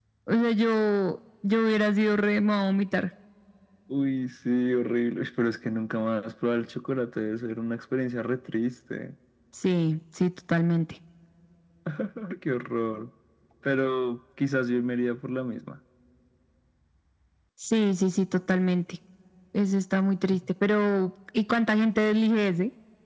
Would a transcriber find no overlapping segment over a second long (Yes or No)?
Yes